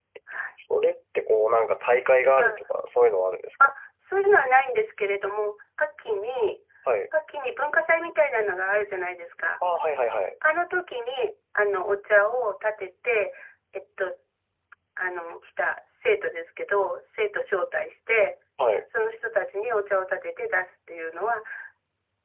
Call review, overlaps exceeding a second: none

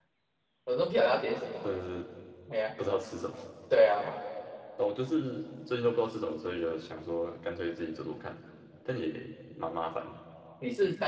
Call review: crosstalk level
none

